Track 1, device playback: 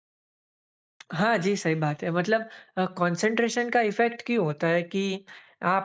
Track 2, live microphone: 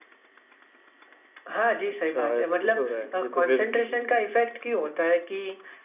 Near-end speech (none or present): present